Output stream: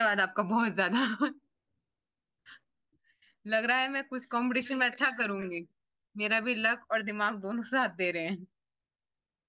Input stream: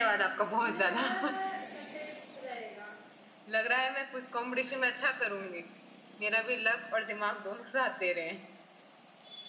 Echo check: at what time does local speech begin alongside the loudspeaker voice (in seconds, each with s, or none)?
0.6 s